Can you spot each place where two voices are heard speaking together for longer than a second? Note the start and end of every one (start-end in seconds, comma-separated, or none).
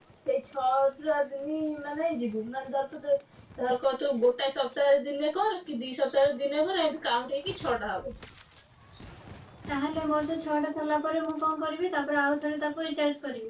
none